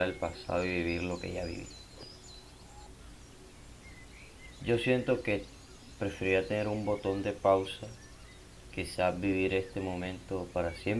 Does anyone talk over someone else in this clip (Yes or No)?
No